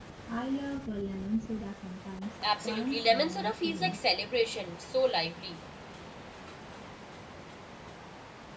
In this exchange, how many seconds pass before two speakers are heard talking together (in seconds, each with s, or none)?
2.4 s